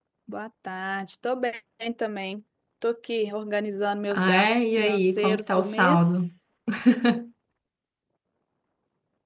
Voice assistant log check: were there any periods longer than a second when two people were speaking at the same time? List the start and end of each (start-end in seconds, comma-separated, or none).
4.1-6.2